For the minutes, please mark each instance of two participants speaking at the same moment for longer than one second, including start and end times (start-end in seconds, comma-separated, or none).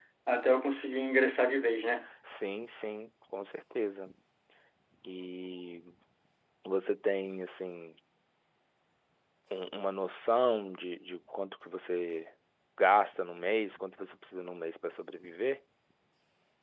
none